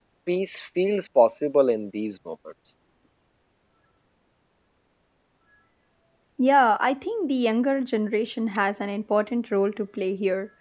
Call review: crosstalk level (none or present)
none